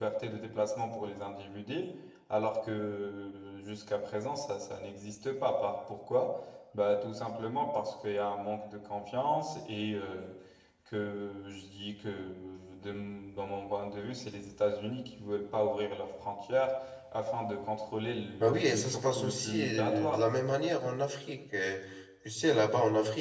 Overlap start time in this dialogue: 18.4 s

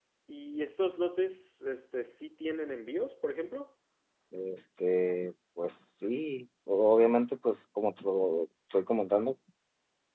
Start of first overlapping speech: none

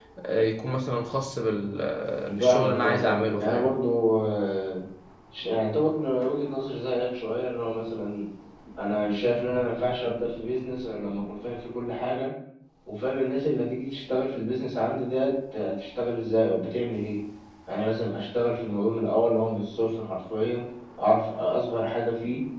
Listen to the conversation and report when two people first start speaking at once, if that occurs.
2.3 s

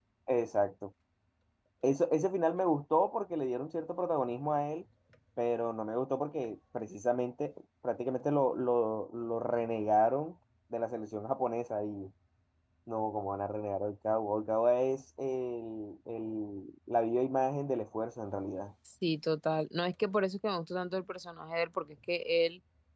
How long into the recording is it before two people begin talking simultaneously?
none

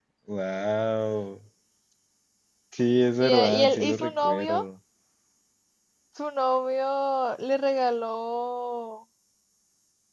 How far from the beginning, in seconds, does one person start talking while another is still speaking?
3.2 s

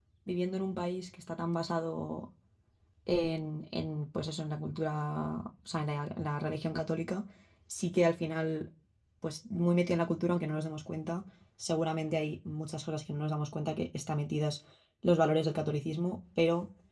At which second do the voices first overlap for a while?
none

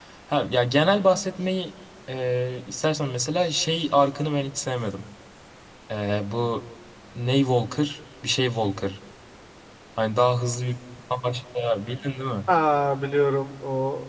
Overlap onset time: none

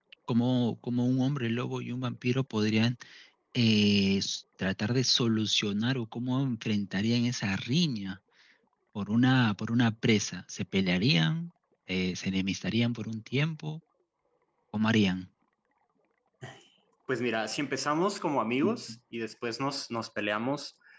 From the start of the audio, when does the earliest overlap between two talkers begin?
none

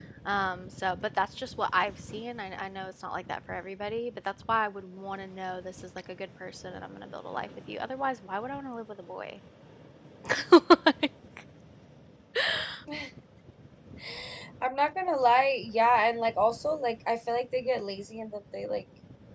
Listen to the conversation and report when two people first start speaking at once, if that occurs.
none

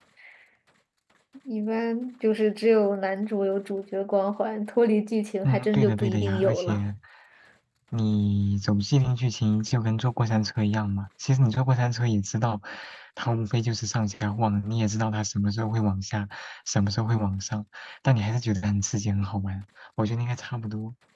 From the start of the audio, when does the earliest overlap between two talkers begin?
5.4 s

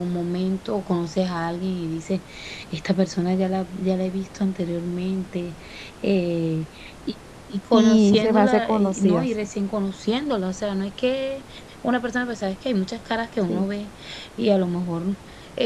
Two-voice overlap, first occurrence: 7.7 s

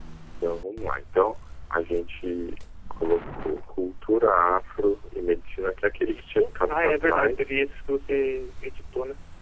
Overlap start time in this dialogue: 6.0 s

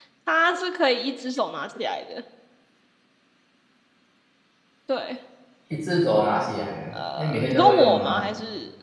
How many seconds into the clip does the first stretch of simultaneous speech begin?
6.9 s

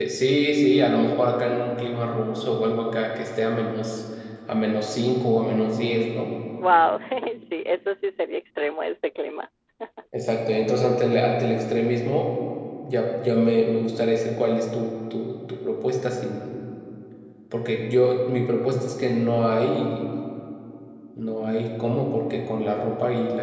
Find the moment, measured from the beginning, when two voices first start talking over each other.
none

